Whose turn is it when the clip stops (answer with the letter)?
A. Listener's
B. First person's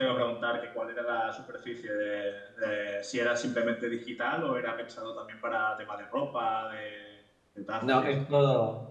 A